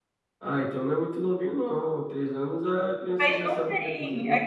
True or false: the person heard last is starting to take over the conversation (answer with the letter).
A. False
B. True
B